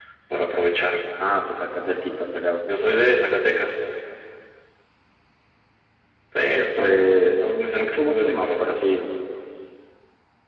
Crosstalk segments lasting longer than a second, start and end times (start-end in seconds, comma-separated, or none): 6.8-8.9